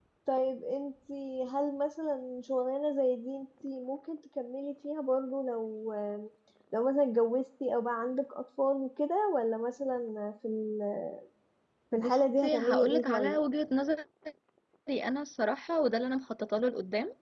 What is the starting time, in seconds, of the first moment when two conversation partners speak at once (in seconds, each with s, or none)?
11.9 s